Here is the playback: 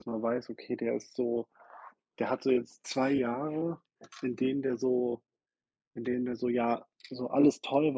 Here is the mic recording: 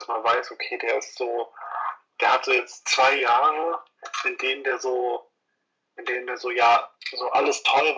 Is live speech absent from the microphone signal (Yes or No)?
Yes